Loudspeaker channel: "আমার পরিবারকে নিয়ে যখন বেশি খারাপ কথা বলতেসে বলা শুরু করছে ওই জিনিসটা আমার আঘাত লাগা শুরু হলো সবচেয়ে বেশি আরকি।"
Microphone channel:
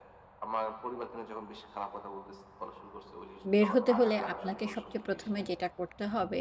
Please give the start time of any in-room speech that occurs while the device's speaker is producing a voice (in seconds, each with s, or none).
3.5 s